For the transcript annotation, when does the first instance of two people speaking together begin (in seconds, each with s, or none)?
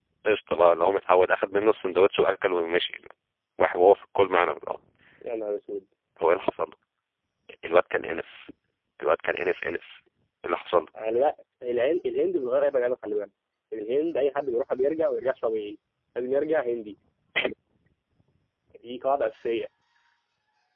none